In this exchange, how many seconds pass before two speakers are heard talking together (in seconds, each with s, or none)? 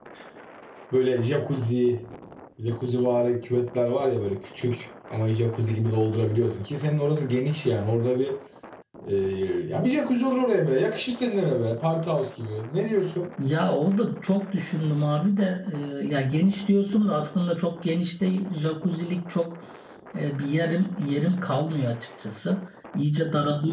none